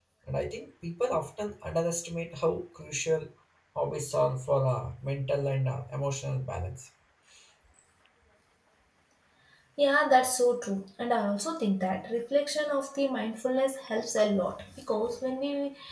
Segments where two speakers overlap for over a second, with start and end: none

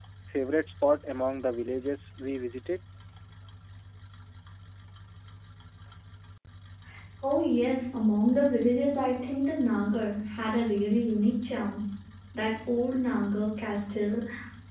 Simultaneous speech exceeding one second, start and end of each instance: none

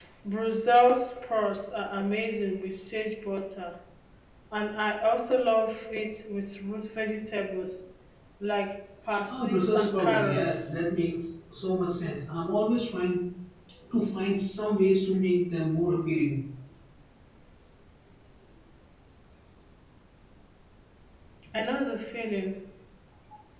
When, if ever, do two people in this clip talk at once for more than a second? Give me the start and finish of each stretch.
9.3-10.8

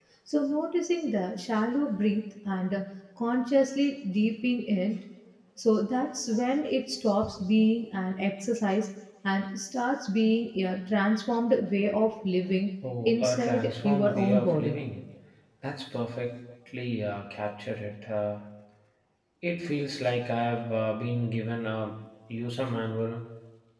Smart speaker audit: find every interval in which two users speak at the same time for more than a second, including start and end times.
13.1-14.8

